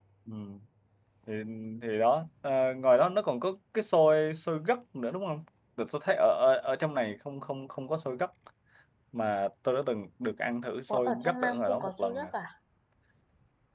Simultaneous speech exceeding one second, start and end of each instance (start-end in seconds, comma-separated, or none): 10.9-12.3